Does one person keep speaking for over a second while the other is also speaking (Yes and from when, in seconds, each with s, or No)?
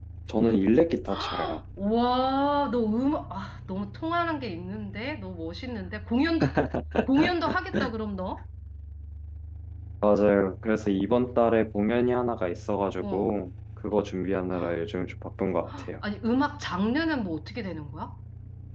No